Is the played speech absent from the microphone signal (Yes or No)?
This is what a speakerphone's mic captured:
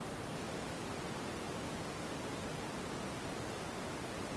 Yes